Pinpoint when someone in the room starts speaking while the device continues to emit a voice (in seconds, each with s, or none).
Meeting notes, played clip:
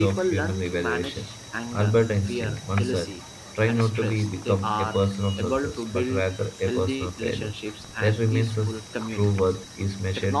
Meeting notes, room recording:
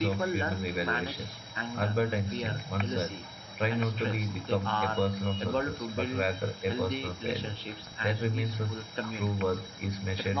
none